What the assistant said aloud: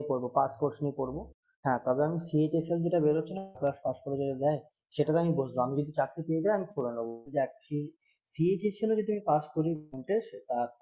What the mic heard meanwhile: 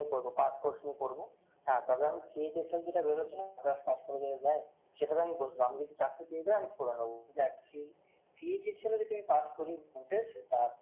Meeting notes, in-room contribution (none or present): none